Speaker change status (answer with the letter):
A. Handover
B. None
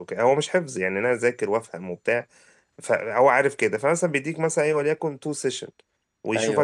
B